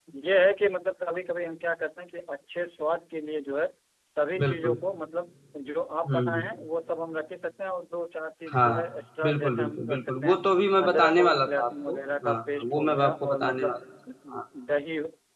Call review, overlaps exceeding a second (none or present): present